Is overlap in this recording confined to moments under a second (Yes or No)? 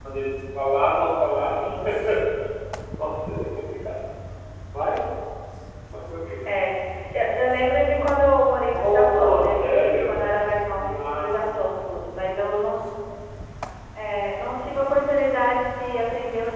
No